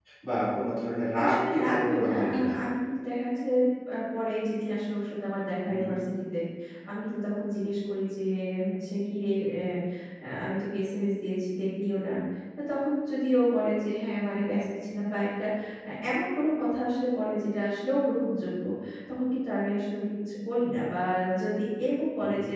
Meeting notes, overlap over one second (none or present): present